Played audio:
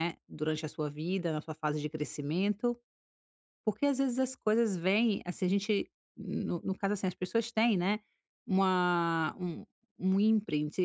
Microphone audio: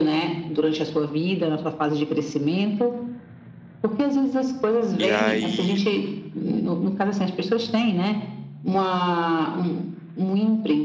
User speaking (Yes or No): Yes